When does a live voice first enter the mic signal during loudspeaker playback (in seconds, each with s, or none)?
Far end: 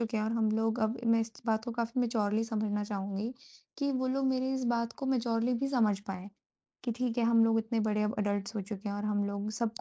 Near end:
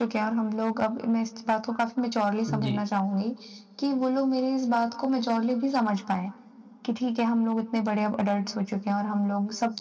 2.5 s